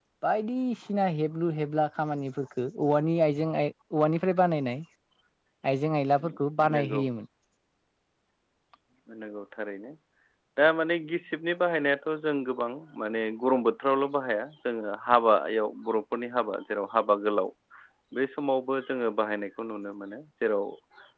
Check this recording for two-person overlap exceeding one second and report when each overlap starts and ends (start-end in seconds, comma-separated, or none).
none